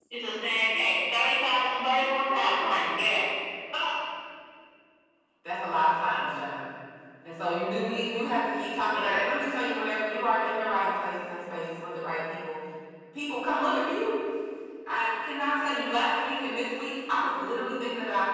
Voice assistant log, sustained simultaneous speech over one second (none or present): none